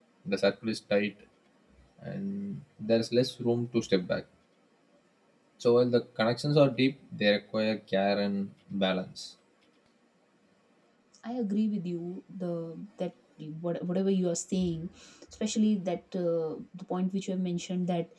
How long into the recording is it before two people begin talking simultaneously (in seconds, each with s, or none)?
none